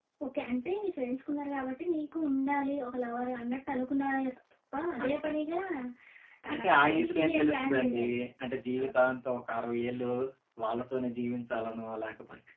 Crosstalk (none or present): present